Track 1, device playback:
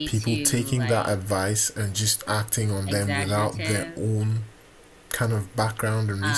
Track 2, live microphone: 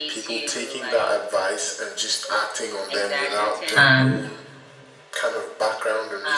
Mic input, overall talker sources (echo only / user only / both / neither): both